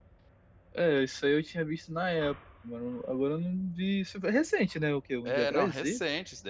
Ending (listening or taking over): taking over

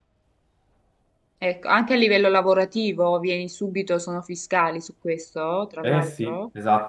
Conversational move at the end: taking over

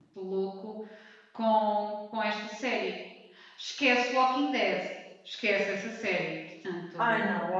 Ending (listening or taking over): taking over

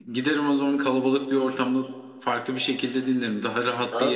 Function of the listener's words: taking over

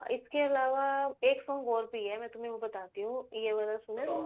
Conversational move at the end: listening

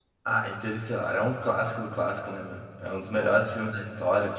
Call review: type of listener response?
listening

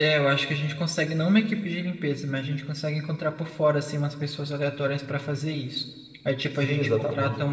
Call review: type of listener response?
listening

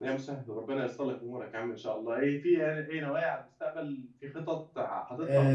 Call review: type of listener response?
taking over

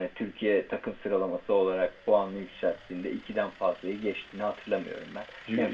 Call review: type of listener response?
listening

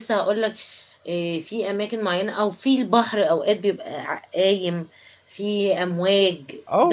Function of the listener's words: taking over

